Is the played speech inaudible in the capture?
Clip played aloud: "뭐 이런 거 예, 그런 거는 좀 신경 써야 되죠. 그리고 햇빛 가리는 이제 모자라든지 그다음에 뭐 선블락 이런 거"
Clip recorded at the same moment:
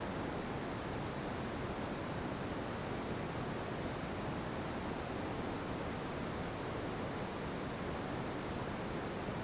Yes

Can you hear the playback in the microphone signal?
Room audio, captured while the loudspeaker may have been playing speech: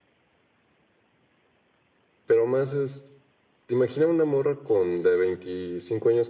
No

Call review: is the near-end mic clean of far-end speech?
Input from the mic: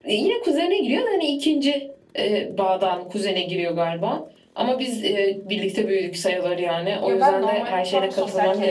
No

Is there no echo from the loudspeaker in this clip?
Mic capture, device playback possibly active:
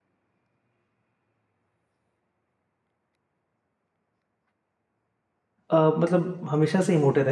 Yes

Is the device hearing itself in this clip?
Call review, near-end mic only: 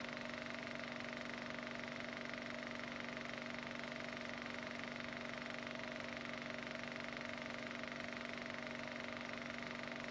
No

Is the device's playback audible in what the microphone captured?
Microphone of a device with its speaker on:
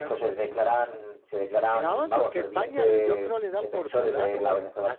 Yes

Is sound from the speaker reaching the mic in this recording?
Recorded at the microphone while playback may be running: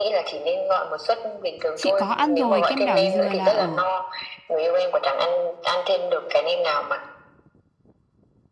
Yes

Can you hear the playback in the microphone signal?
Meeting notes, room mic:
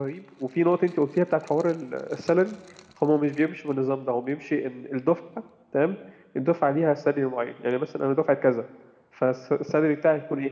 No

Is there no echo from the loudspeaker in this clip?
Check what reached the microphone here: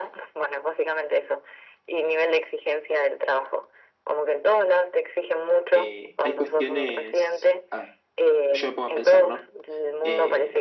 No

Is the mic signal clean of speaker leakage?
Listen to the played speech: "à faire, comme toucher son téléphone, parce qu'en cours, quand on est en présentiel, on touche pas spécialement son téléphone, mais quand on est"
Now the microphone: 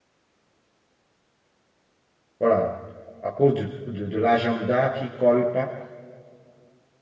Yes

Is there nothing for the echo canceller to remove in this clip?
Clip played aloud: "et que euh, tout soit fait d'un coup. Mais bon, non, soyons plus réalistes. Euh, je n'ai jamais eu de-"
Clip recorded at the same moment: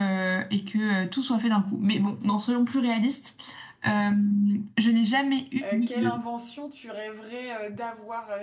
No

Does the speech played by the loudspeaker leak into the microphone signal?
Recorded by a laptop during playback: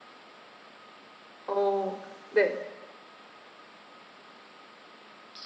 No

